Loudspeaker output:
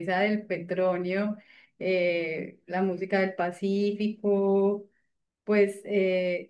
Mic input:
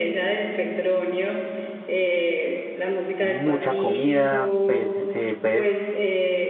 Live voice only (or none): mucha comida, pues, eh, pues,